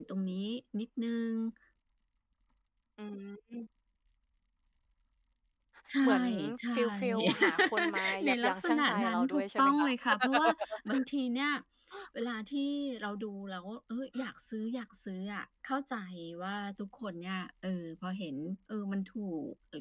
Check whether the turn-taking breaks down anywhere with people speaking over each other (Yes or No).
Yes